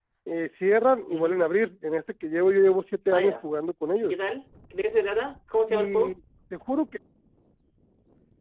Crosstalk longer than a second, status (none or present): none